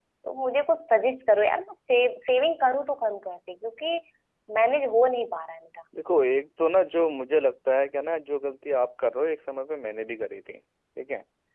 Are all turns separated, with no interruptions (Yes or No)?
Yes